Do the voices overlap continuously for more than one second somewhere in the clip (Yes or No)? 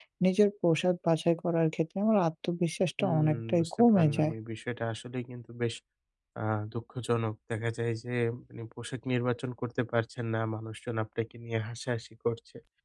Yes